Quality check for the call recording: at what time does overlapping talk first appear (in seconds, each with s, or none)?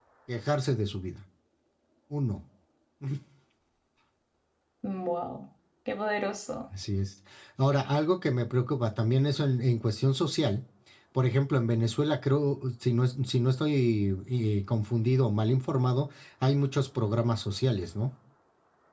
none